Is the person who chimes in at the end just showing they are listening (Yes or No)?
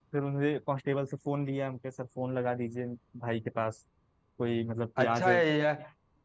No